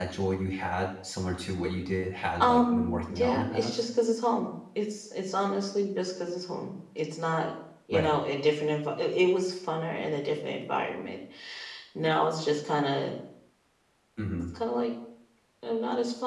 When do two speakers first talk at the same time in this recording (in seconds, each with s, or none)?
2.4 s